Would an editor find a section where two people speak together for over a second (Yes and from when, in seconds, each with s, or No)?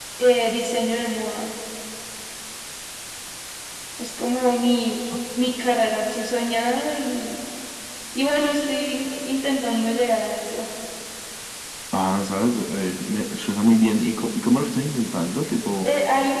No